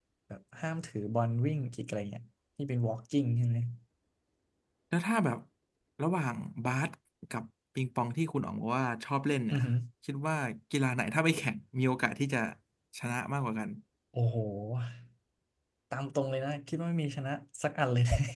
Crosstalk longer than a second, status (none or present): none